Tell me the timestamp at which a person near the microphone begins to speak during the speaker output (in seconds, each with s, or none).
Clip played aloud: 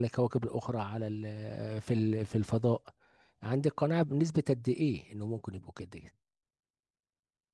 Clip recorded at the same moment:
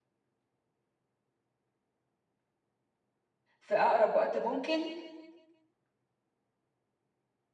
3.6 s